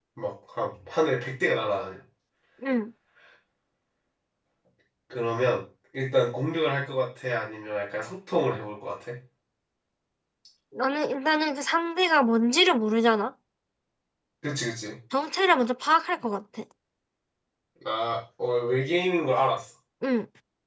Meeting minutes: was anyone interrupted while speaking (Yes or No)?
No